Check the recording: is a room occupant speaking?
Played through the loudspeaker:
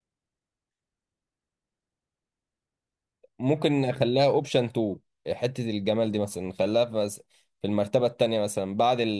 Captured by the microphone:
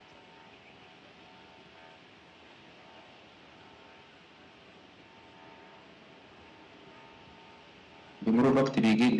Yes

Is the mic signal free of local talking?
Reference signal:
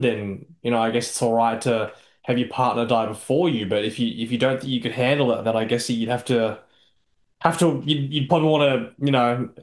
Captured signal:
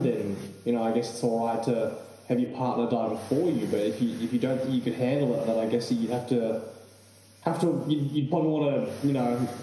Yes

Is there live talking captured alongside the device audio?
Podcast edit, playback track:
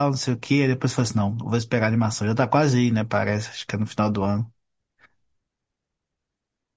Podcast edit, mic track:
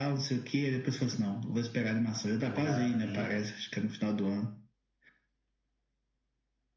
Yes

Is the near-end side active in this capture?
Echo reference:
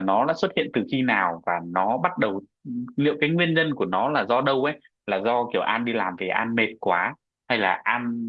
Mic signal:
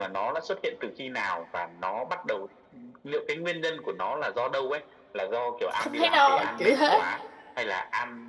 Yes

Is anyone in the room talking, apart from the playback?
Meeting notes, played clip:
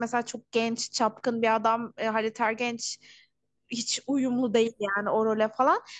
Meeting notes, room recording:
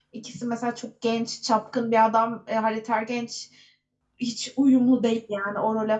No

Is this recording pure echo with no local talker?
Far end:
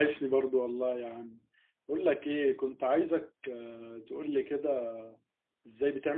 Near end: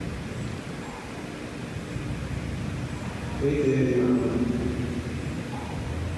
No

